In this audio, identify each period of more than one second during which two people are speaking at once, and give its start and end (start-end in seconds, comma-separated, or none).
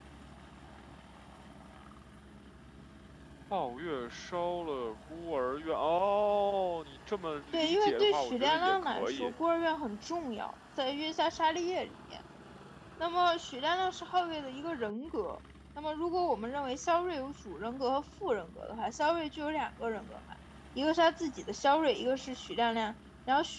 7.5-9.3